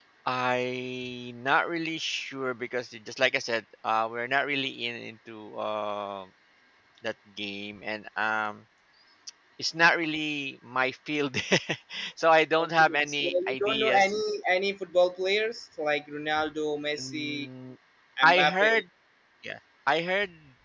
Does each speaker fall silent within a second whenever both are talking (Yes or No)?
No